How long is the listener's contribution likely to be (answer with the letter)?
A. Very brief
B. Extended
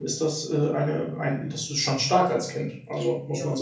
B